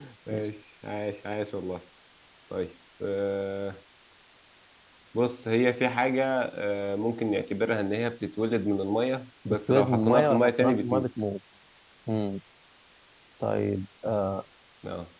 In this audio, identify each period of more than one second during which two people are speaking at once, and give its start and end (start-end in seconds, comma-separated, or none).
9.5-11.1